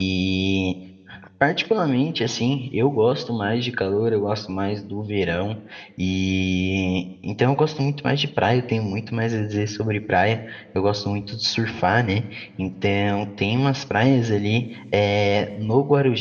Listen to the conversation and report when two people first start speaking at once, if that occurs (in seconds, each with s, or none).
none